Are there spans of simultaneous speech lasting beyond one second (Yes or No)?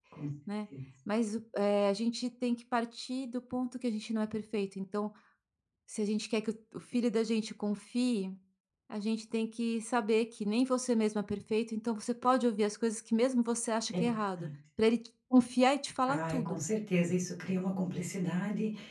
No